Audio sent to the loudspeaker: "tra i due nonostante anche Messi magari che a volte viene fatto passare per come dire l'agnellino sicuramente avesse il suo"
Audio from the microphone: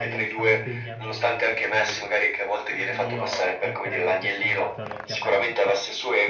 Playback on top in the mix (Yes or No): Yes